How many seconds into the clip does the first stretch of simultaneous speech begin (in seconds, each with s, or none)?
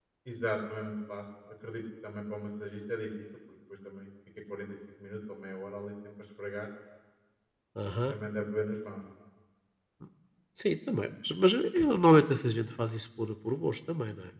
none